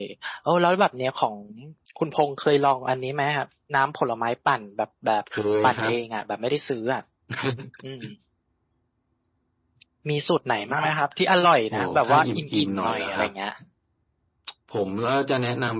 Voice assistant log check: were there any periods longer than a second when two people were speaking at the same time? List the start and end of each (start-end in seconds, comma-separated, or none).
11.7-13.3